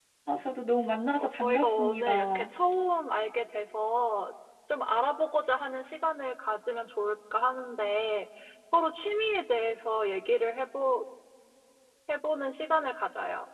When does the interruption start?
1 s

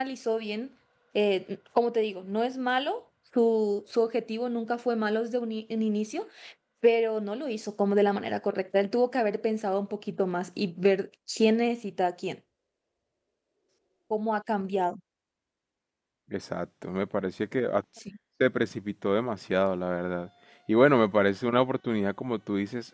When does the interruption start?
none

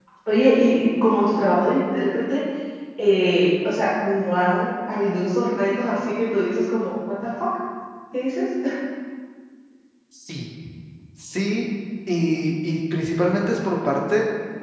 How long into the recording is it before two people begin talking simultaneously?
none

